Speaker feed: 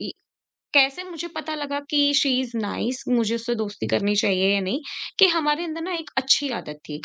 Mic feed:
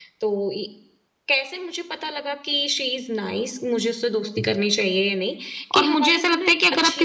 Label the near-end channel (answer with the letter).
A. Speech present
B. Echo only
A